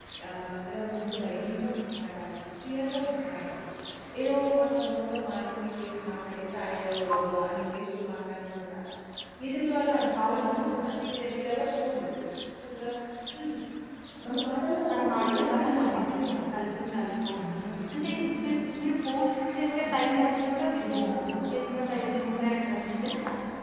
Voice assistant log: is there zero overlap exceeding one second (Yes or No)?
No